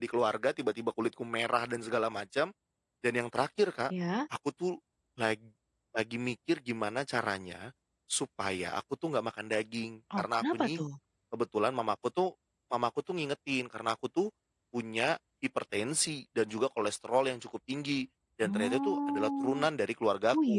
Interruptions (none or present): present